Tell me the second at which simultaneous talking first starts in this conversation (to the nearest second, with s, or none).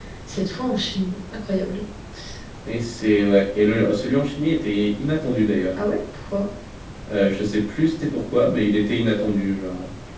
none